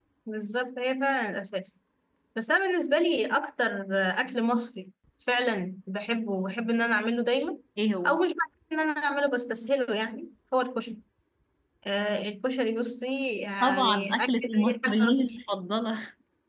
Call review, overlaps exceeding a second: present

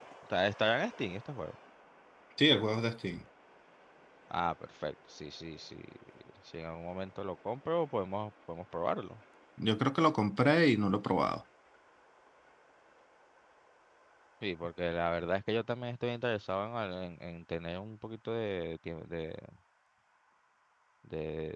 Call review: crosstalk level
none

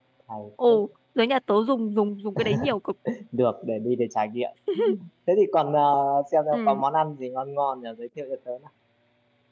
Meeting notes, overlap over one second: none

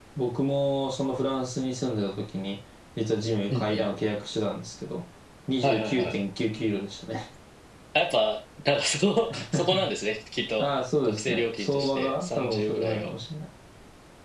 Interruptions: present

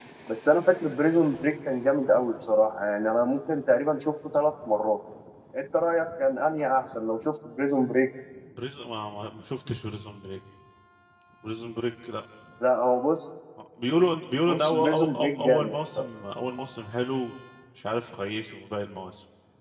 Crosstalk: present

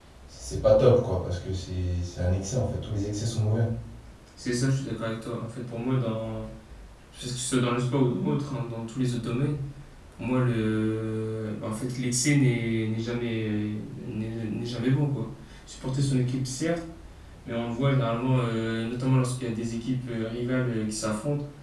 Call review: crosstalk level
none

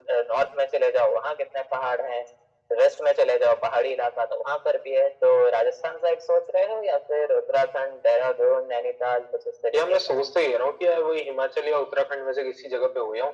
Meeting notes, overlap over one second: none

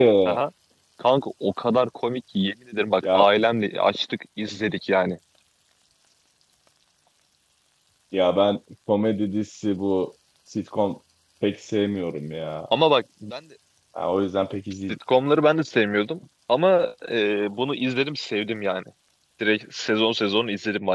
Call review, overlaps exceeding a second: none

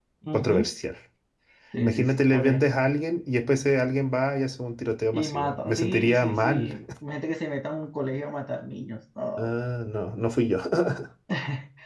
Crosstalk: present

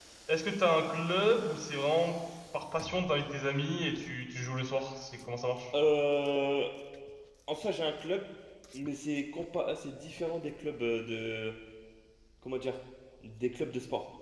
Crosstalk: none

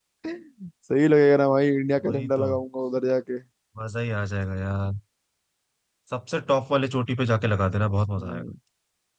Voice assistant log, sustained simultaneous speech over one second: none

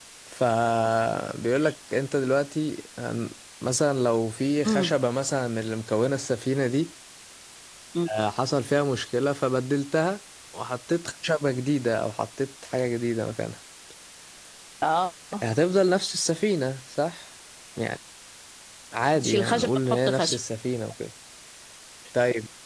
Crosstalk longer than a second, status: present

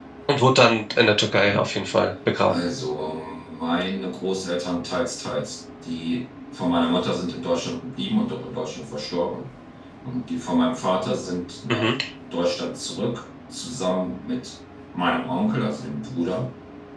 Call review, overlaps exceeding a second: none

